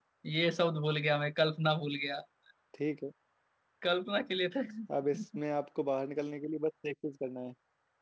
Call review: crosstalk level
none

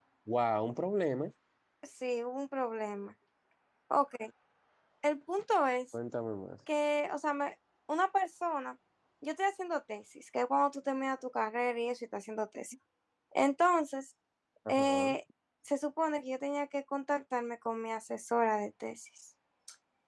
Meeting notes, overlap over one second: none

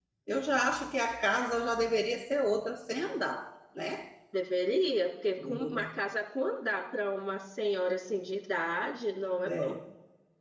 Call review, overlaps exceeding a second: none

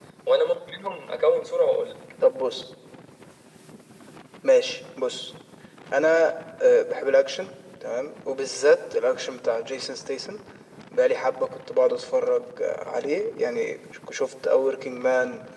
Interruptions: none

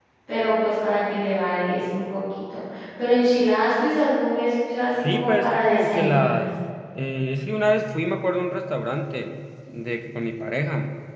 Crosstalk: present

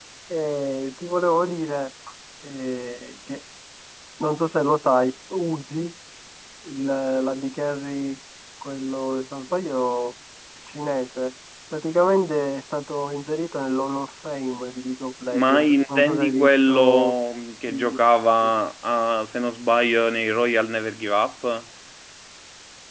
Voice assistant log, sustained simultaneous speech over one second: present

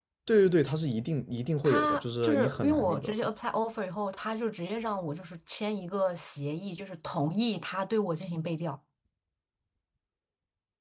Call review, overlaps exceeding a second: present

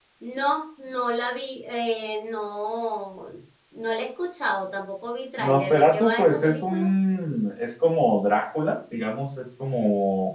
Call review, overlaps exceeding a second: present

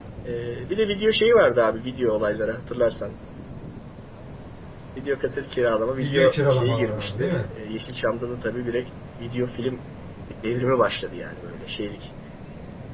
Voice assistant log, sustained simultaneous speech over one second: present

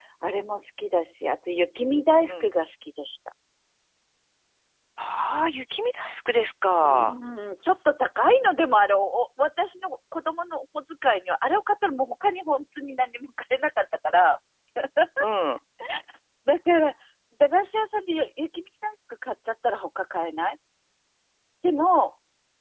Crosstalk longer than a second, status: none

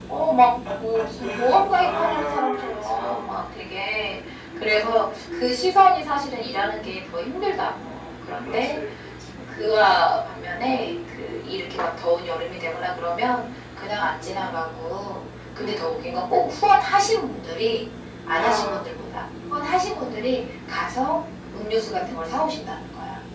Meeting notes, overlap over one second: present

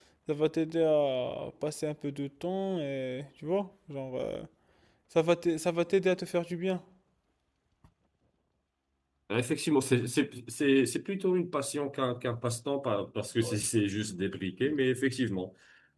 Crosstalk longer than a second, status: none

